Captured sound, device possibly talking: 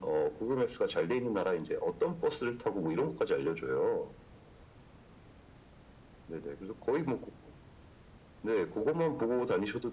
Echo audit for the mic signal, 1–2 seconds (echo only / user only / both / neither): echo only